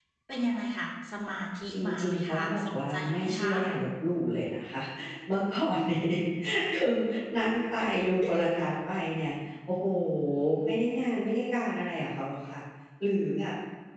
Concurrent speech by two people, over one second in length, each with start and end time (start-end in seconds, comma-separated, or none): 1.7-3.6